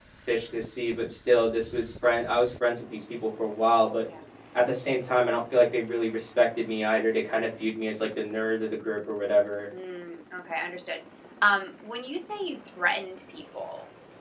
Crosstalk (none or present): none